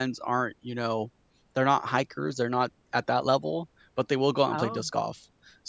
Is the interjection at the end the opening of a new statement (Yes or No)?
No